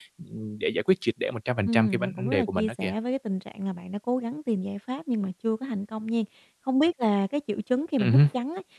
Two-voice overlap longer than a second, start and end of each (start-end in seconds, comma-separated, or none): 1.6-2.9